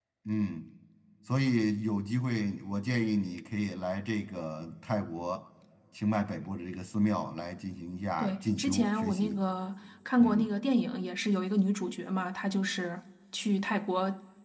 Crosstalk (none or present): present